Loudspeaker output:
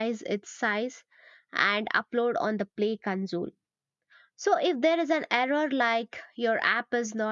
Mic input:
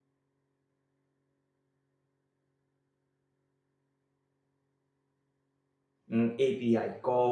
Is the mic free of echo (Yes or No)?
Yes